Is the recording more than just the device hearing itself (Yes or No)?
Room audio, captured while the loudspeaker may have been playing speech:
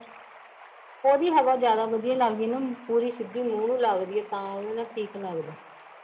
No